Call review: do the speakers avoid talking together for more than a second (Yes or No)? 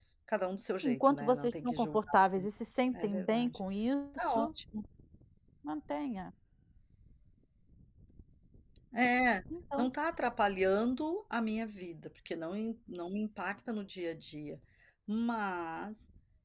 No